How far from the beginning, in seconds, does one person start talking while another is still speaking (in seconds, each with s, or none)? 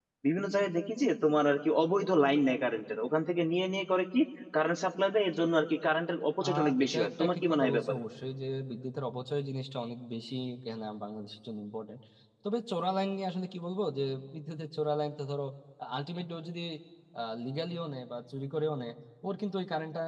6.4 s